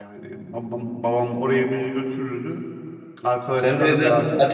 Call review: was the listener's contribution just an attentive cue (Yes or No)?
No